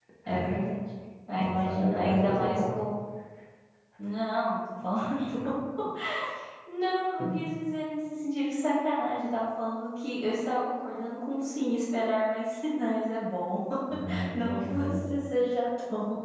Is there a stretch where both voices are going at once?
Yes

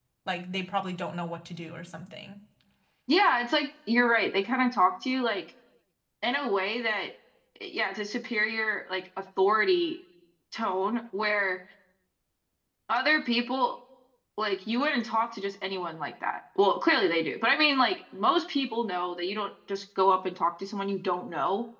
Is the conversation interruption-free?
Yes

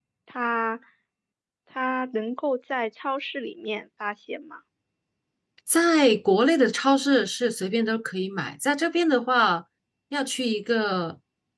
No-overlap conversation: Yes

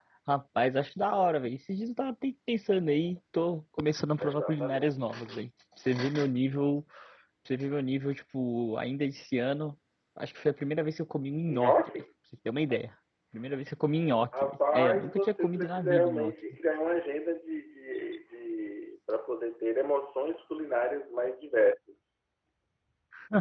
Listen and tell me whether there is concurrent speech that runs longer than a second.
Yes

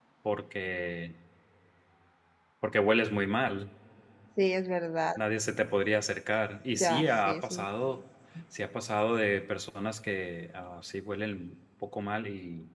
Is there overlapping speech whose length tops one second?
Yes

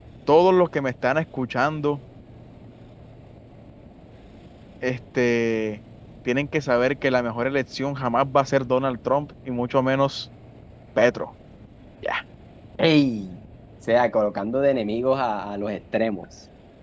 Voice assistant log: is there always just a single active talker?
Yes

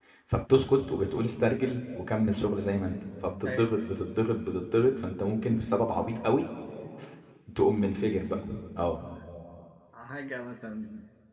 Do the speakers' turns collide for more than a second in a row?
No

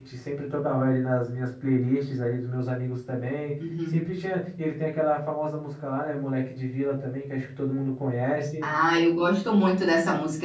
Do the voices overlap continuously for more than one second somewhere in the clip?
No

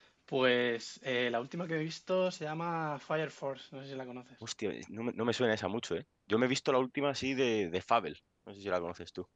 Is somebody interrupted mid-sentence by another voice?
No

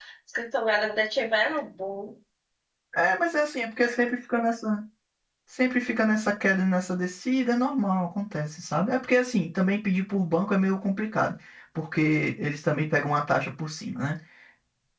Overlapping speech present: No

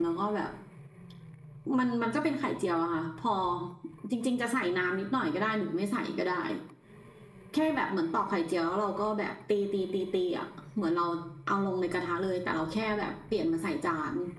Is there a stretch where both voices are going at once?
No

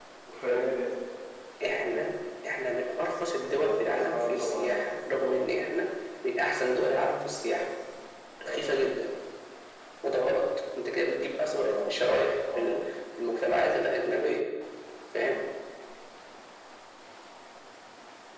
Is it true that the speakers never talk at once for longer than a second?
No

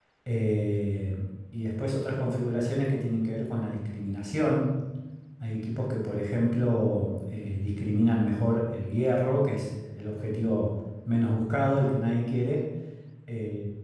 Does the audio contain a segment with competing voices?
No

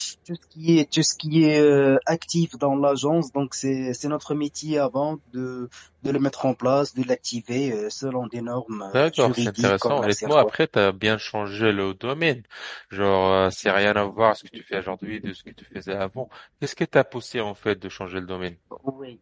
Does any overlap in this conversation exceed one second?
Yes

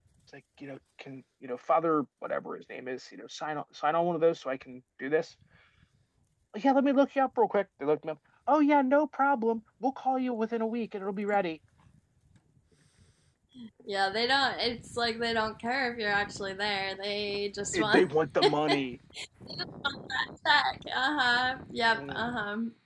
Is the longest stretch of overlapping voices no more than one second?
Yes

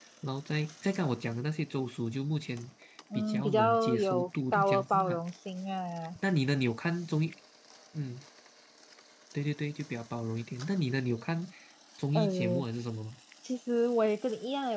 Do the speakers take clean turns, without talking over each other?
No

